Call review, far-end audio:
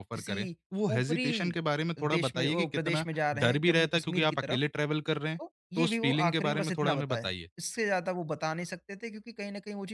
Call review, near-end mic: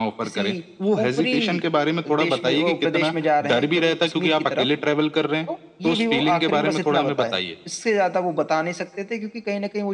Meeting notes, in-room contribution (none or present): none